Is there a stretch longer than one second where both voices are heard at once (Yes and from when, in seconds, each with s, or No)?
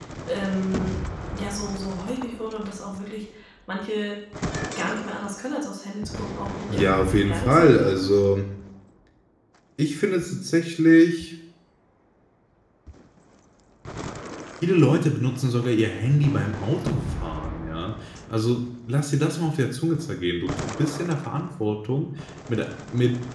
Yes, from 6.7 s